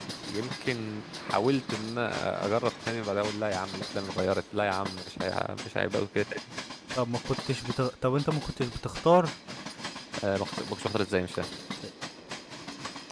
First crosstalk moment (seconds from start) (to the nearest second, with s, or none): none